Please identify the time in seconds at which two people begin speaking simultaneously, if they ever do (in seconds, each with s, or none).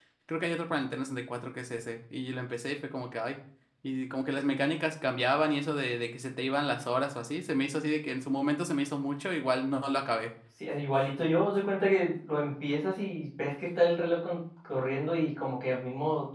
none